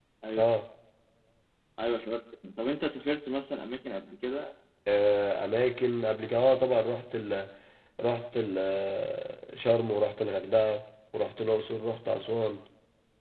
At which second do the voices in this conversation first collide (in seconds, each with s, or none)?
none